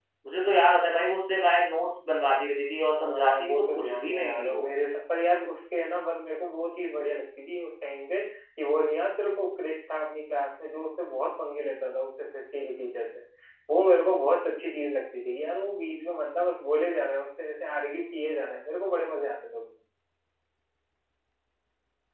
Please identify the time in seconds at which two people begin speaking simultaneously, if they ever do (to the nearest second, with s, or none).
3 s